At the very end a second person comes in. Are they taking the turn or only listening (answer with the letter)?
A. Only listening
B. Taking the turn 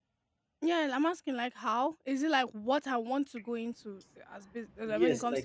B